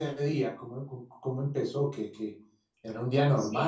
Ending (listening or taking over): taking over